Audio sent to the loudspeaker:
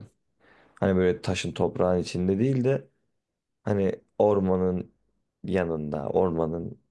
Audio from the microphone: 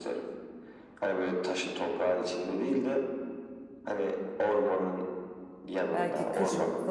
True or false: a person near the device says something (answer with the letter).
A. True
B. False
A